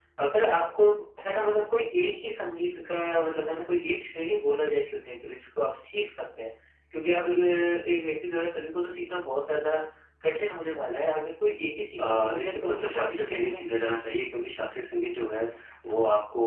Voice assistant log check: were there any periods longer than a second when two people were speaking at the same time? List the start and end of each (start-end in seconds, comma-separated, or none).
12.0-13.8